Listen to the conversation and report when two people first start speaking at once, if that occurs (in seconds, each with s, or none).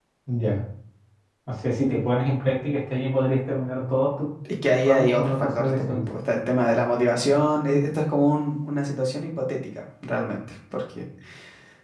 4.7 s